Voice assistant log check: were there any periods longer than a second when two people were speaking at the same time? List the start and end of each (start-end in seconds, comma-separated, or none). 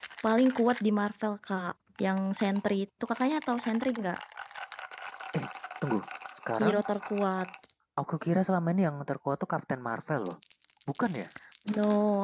none